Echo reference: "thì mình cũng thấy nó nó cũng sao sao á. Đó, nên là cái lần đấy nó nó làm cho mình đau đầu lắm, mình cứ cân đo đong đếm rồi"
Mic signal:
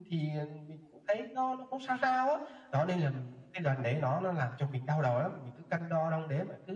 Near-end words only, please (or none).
none